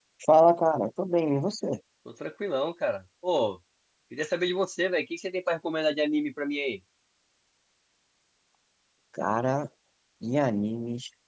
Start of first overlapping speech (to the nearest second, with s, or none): none